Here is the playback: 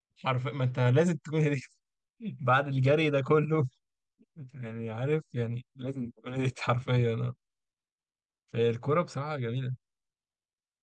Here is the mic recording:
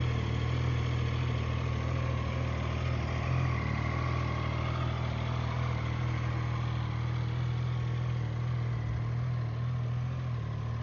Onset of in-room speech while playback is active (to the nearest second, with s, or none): none